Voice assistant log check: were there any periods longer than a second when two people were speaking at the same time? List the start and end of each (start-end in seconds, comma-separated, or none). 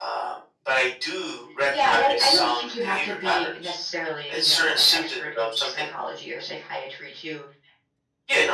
1.7-3.7, 4.3-5.9